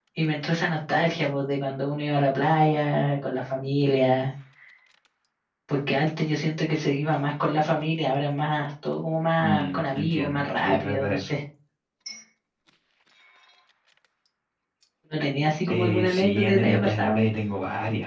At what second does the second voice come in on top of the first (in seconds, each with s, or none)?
9.4 s